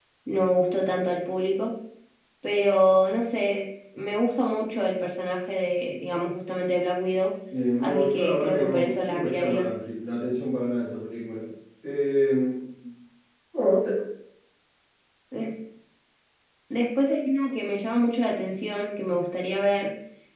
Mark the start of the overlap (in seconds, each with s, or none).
7.8 s